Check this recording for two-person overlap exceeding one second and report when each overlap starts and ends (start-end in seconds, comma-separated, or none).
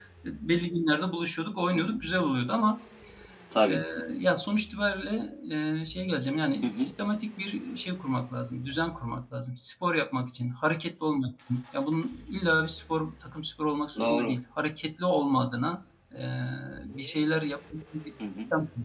none